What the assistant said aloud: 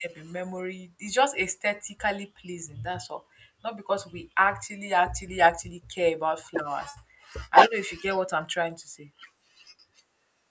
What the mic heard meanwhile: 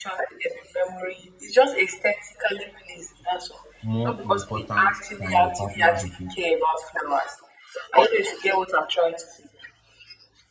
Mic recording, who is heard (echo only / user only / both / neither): both